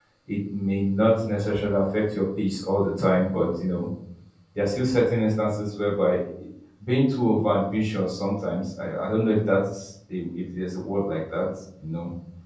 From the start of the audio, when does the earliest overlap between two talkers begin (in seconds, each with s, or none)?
none